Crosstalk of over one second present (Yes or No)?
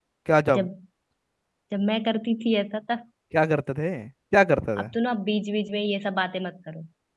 No